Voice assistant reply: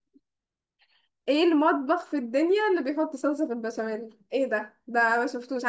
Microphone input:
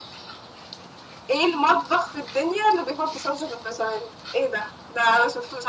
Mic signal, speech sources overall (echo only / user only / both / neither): echo only